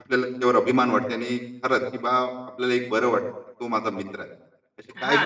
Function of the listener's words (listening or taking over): taking over